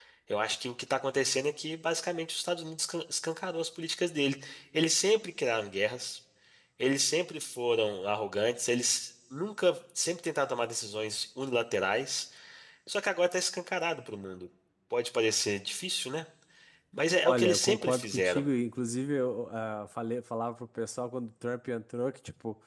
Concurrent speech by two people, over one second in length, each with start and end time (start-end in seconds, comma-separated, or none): 17.2-18.5